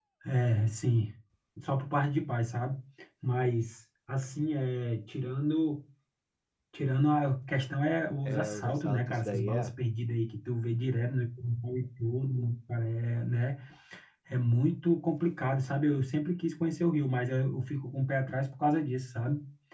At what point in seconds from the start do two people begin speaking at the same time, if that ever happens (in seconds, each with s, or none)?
8.2 s